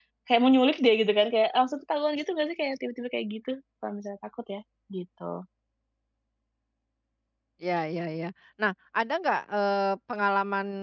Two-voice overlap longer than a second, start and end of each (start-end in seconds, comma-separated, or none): none